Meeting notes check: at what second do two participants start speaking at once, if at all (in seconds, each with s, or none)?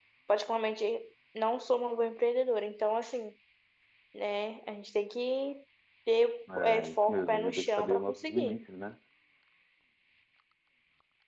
6.5 s